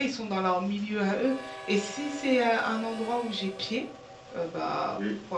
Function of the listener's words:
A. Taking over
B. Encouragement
B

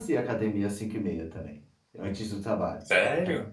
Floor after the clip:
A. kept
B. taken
B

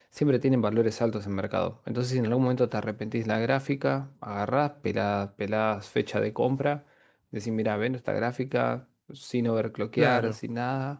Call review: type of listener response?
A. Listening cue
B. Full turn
A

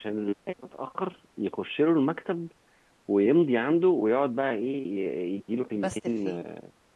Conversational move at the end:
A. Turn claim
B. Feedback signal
B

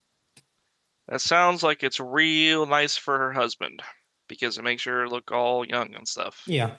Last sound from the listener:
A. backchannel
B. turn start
B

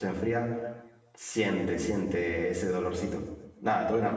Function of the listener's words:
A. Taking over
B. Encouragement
B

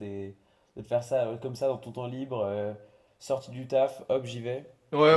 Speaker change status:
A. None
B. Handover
B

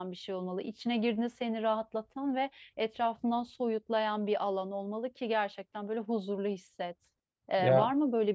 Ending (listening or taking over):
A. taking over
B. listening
B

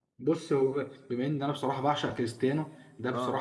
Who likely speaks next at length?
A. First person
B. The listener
A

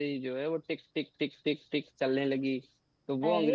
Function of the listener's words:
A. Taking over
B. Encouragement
B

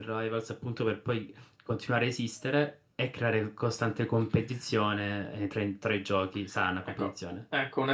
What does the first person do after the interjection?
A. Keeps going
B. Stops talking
B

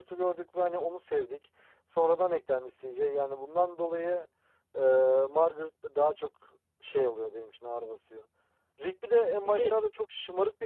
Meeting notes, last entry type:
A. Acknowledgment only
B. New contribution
A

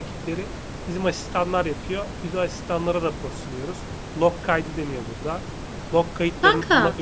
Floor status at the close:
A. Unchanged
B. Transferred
A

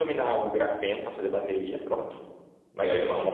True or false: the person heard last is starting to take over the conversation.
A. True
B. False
B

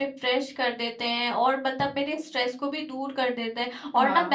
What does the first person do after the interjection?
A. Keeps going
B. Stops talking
A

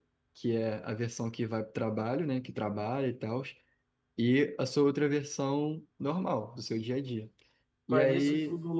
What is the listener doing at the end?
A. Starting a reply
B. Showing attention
A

